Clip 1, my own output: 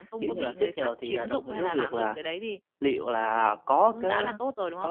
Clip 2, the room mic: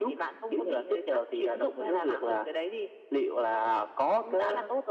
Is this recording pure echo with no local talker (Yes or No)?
Yes